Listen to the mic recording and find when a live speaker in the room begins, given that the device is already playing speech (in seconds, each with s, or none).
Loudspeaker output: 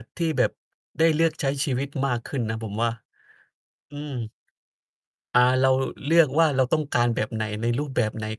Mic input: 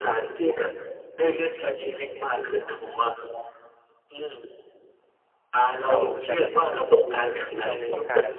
5.9 s